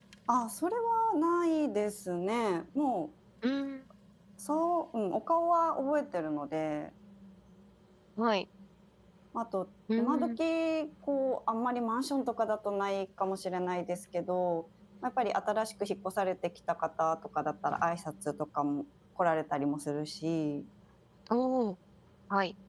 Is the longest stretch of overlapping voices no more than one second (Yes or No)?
Yes